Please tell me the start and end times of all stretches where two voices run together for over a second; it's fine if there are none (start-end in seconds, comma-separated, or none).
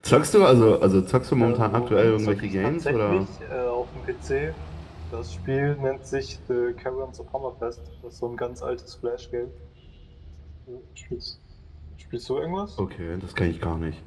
1.4-3.2